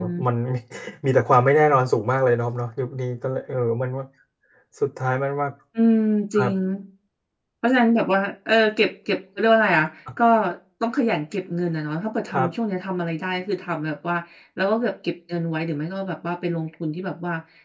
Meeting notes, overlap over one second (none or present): none